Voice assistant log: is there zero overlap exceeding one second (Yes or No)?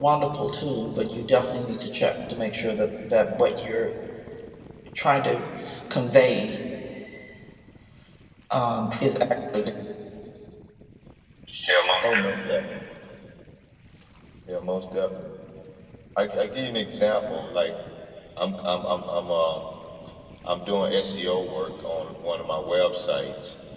Yes